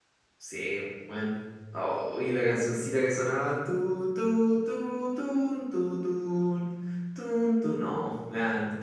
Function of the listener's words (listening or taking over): taking over